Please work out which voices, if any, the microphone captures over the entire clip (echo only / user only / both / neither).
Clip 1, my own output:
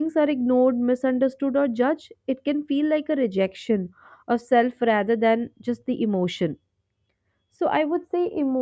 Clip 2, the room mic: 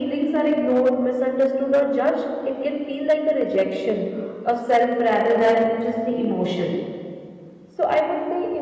echo only